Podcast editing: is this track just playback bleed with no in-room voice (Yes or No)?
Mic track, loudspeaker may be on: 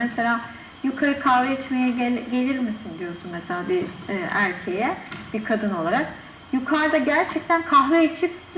Yes